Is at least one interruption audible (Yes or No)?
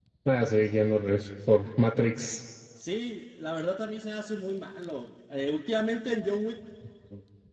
No